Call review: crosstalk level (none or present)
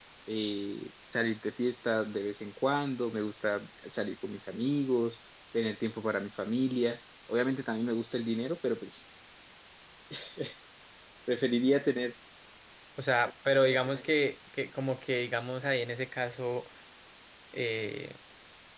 none